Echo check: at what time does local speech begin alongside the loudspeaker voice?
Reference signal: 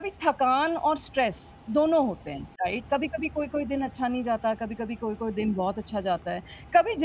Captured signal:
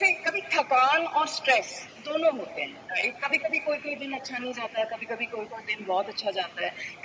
none

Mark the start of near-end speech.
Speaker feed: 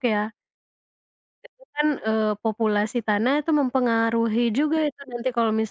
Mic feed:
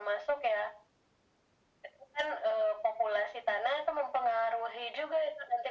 none

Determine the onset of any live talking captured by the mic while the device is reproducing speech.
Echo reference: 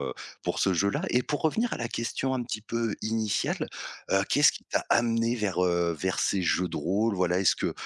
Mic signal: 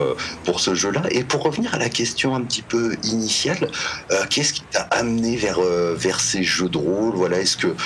none

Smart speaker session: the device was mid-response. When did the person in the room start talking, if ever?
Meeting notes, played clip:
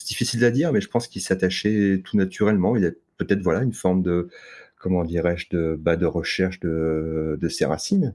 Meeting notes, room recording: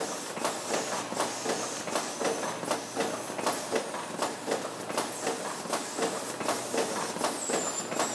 none

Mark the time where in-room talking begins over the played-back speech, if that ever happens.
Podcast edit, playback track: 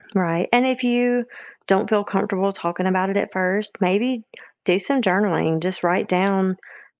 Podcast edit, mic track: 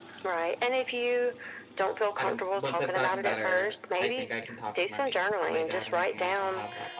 2.2 s

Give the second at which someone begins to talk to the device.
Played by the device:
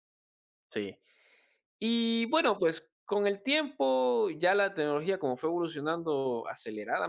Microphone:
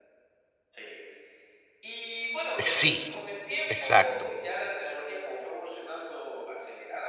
2.5 s

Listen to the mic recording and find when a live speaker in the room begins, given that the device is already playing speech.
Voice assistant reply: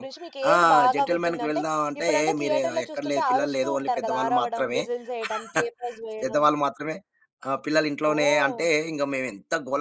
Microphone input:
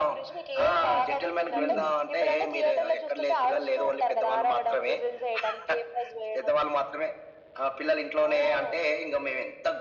1.5 s

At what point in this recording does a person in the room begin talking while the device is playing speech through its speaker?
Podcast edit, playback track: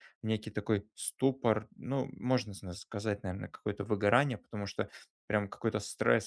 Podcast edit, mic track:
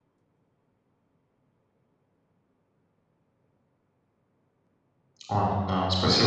5.3 s

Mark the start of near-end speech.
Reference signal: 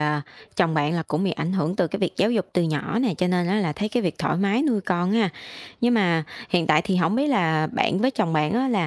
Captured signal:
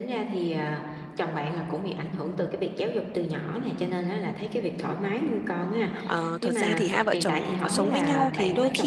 6.0 s

